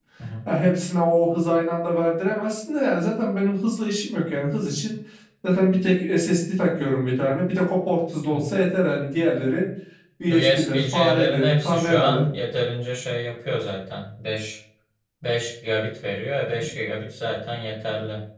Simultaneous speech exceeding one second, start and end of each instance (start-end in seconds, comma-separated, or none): 10.3-12.2